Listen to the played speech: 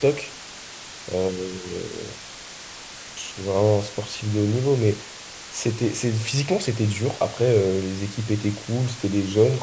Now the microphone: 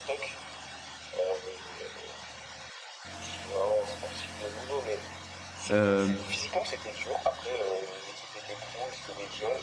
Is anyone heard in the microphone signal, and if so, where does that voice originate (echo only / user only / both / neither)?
both